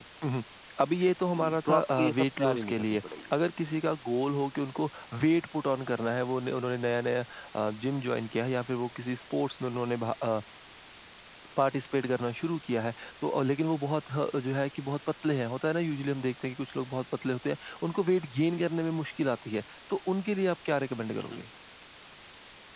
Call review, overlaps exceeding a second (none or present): present